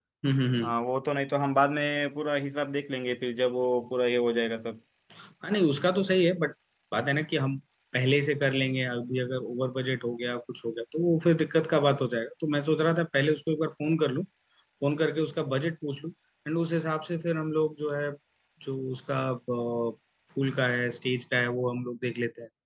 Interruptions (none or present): none